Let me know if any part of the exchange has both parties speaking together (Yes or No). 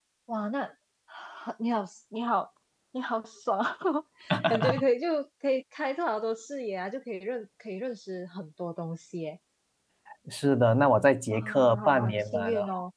Yes